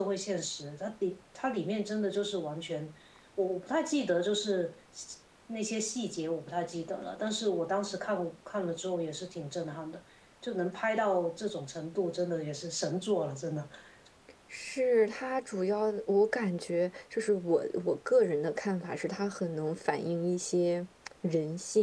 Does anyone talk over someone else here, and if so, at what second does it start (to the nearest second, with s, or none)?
none